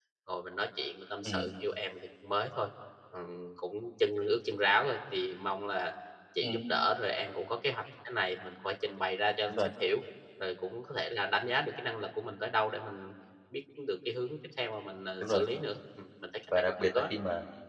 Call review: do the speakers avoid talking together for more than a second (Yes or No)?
Yes